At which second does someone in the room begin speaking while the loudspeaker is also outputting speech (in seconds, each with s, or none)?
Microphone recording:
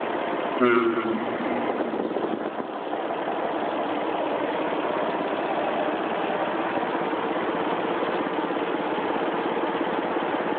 0.6 s